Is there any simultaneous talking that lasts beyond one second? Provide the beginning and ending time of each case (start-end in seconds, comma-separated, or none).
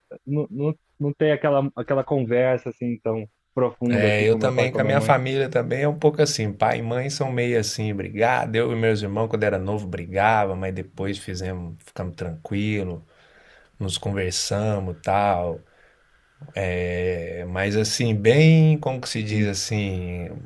3.9-5.1